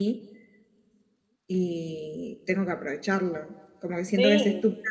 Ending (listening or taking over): listening